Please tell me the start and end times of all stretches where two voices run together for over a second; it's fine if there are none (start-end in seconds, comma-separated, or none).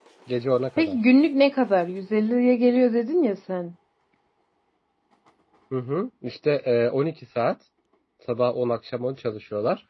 none